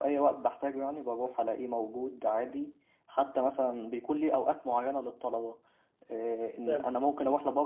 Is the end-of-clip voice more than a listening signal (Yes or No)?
No